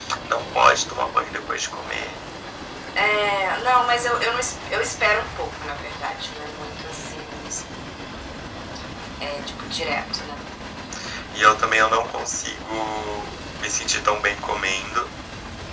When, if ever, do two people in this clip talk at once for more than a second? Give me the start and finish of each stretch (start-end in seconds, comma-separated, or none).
none